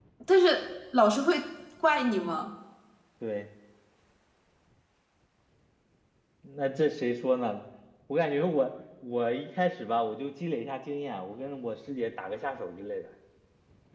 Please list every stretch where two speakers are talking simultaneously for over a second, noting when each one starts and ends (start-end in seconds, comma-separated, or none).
none